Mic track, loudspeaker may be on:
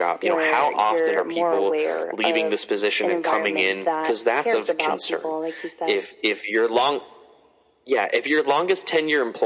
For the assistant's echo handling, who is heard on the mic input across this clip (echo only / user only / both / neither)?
echo only